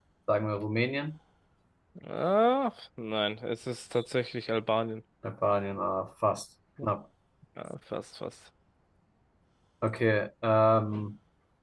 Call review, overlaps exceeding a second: none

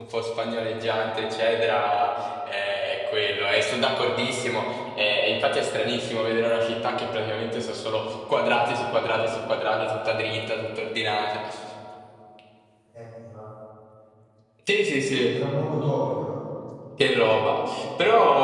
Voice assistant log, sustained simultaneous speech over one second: none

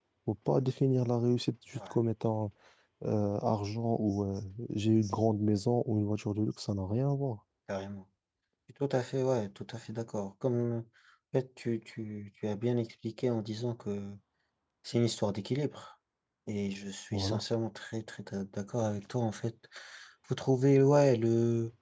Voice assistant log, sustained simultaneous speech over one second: none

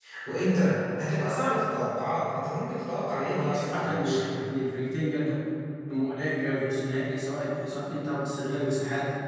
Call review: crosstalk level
present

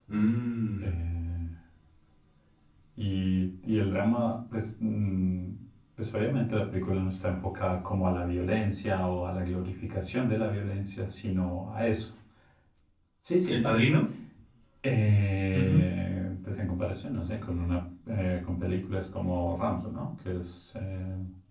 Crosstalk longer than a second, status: none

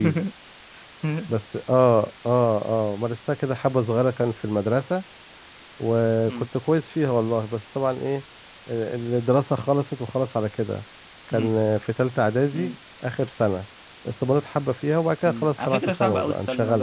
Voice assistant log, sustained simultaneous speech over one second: present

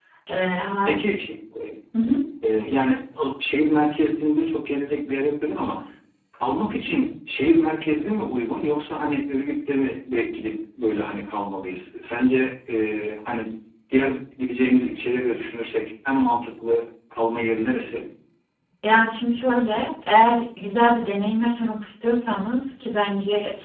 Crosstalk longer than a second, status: none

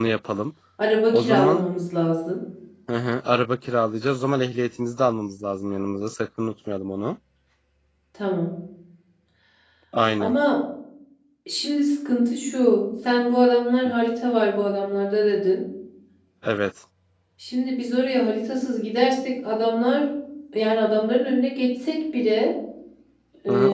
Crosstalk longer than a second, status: none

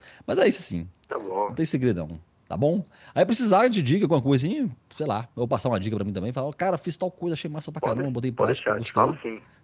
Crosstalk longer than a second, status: present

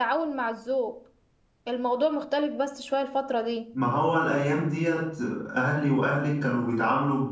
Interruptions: none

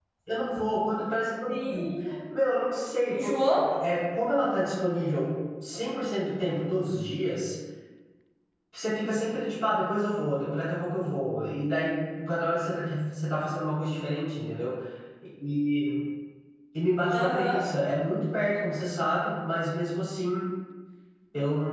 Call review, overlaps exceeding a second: none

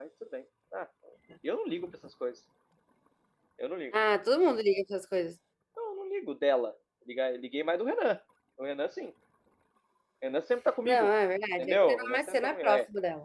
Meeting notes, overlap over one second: present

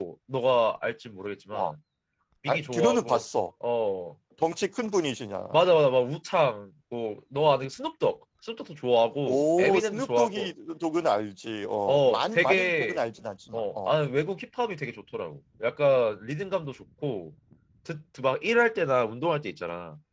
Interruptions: present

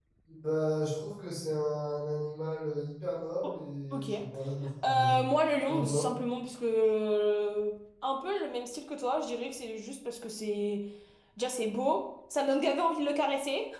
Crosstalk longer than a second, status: none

